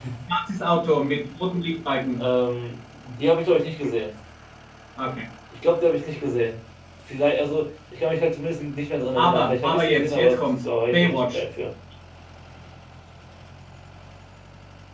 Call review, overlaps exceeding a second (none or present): present